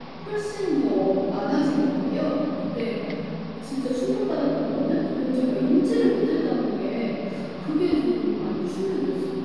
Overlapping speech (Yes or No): No